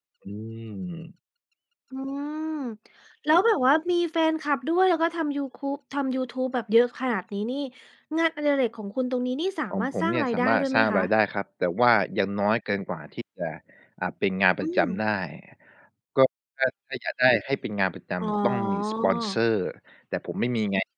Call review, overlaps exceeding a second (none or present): present